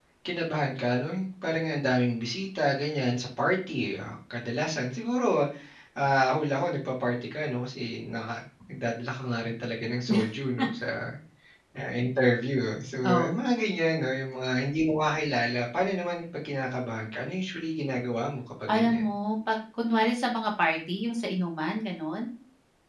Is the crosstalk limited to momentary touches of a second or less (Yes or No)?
Yes